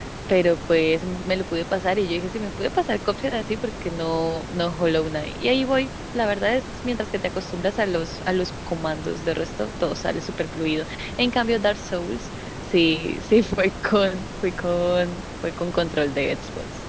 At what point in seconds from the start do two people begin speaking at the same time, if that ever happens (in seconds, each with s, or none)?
none